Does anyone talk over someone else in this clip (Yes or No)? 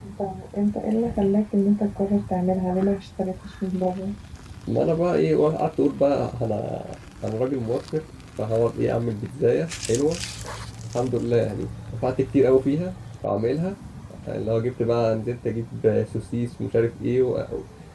No